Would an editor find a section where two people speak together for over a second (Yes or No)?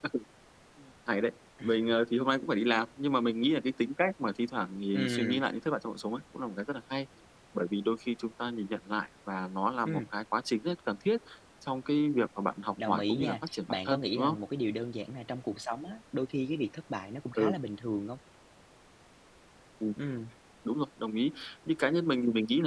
Yes